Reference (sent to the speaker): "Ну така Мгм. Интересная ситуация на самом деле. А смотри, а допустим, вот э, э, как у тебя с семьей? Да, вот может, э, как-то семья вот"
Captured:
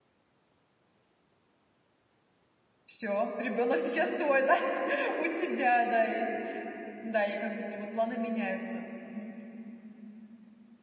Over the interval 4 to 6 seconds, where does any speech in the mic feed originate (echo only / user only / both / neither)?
user only